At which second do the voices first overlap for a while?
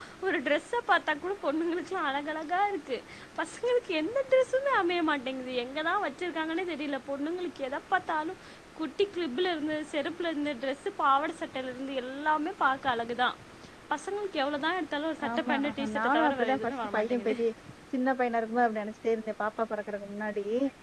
15.2 s

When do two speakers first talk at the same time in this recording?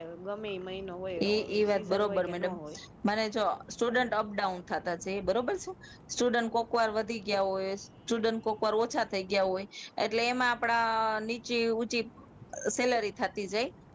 1.3 s

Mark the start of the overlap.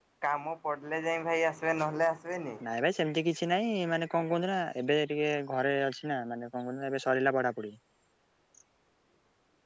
none

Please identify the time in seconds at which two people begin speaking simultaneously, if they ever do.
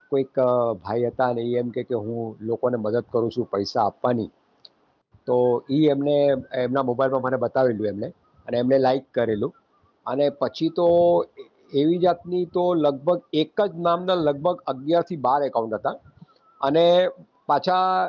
none

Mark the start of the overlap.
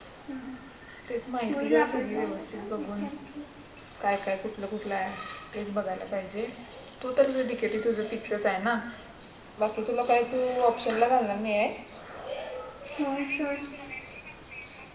1.5 s

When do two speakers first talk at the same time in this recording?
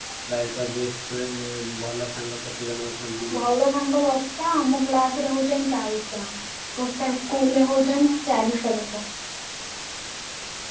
none

